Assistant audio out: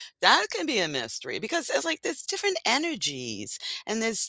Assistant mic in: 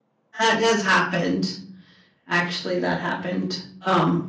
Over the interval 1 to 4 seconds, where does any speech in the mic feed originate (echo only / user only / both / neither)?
user only